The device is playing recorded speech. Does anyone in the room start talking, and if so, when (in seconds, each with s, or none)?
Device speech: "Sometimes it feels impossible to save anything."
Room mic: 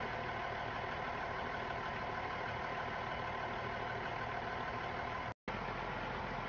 none